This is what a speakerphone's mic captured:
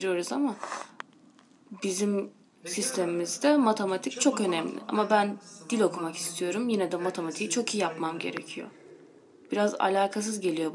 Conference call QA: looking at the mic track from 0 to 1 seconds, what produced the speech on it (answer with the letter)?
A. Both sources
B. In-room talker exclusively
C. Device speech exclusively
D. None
C